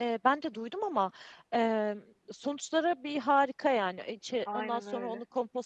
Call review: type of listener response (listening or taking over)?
listening